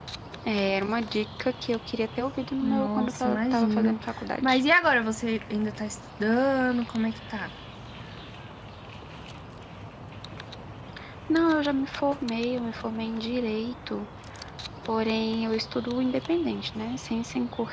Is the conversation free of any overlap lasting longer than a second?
No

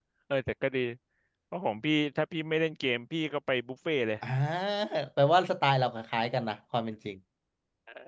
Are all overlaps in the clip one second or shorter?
Yes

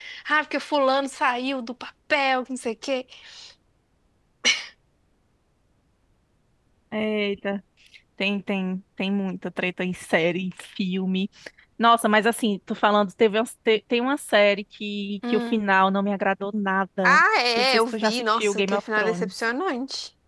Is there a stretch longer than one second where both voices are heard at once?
Yes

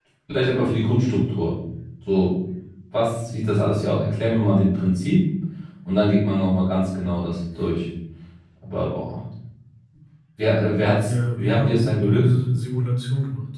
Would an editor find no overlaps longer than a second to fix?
No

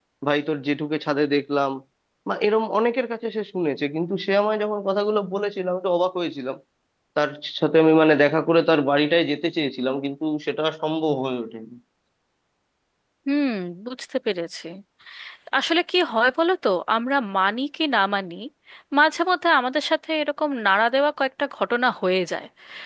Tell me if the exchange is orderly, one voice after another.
Yes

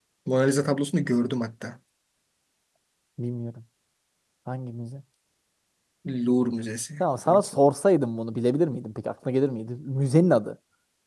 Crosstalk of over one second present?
No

